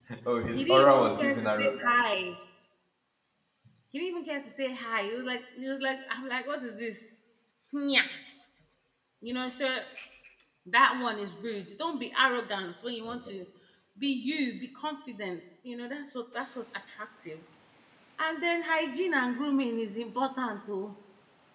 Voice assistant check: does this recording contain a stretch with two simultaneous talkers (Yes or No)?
Yes